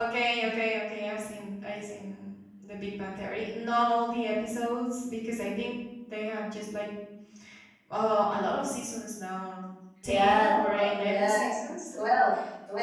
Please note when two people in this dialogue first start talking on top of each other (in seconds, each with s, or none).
10.1 s